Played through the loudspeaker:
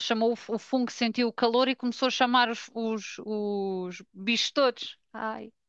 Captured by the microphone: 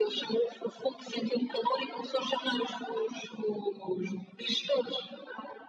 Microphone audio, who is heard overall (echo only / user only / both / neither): echo only